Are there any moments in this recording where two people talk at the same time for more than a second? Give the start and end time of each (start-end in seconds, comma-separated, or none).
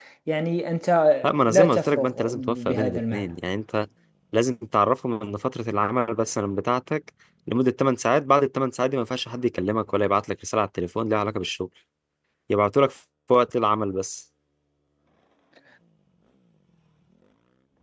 1.5-3.3